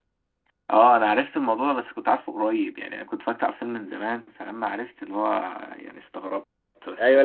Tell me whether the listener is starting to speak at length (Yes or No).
Yes